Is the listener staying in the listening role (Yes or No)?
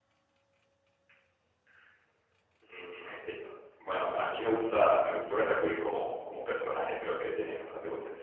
Yes